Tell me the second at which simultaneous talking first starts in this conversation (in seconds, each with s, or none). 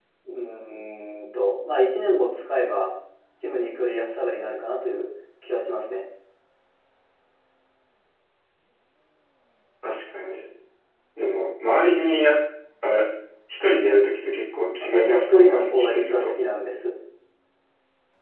14.8 s